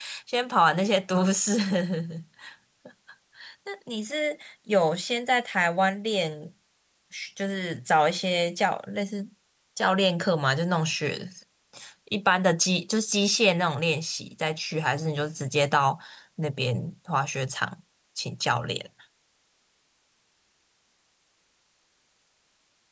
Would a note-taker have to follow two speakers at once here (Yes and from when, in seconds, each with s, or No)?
No